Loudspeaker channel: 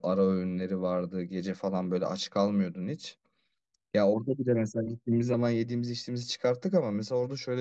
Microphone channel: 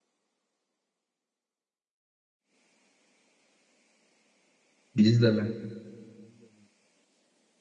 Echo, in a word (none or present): none